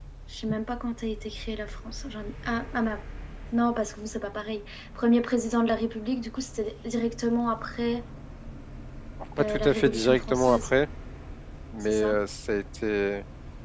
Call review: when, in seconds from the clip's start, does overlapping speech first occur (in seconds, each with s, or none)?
9.4 s